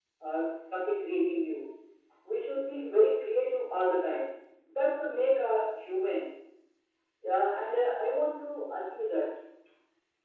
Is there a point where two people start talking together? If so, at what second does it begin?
none

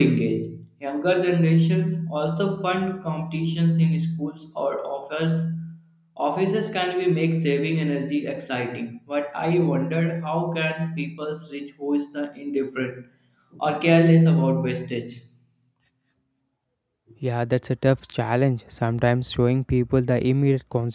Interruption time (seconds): none

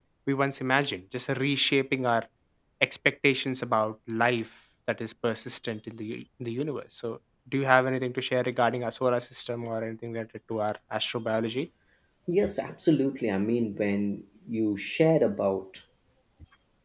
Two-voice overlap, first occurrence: none

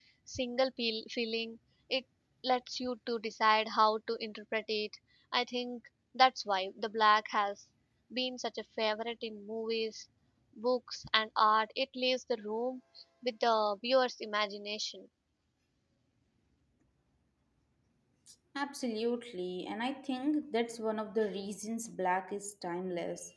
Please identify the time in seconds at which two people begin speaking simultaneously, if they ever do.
none

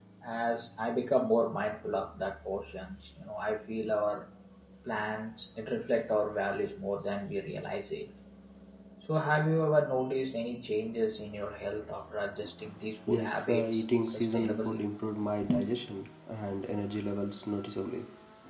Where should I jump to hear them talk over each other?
13.1 s

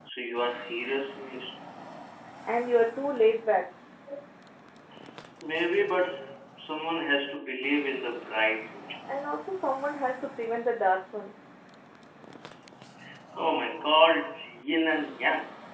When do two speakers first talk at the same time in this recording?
none

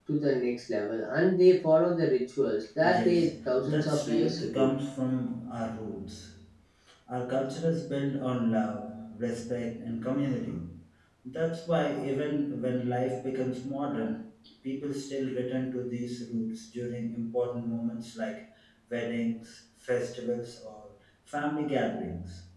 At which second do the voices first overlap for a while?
2.8 s

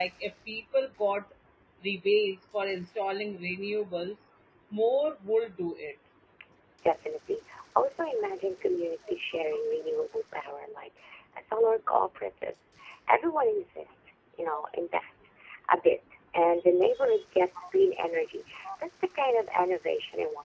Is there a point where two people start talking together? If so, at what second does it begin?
none

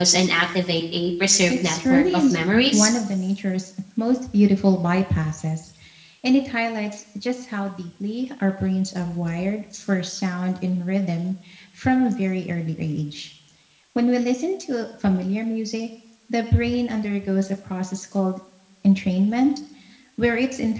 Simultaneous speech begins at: 1.5 s

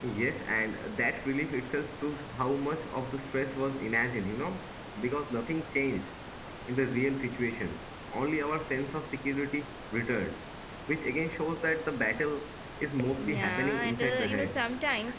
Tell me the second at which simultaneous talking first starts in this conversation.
13.2 s

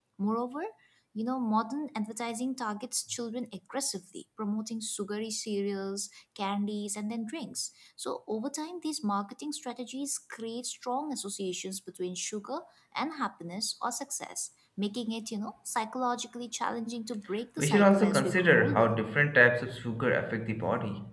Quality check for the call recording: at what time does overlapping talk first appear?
17.6 s

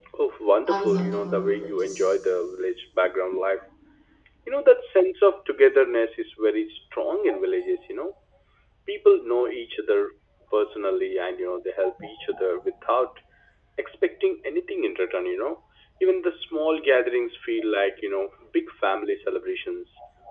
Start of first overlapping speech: 0.7 s

